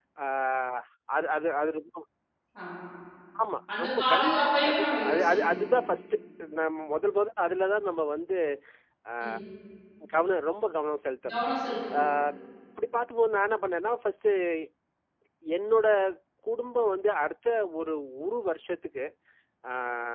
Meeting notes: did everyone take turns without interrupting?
No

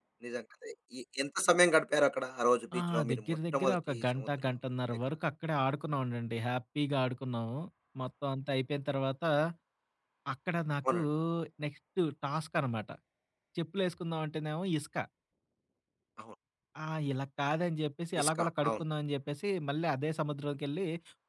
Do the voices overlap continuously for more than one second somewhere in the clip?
Yes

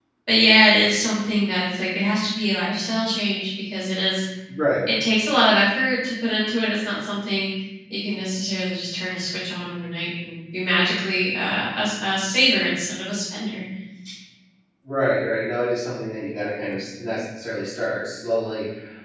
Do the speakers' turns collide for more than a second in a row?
No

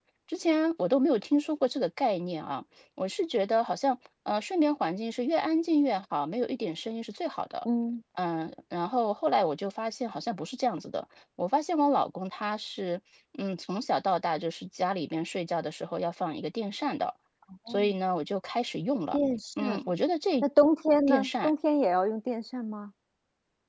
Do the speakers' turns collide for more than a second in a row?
No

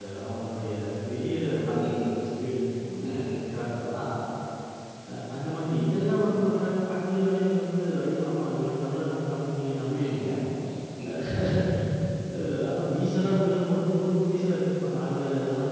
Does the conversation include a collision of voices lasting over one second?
No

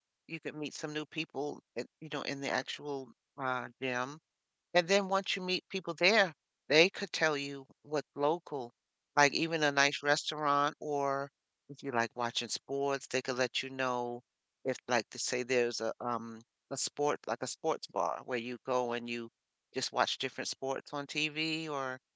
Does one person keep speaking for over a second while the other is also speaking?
No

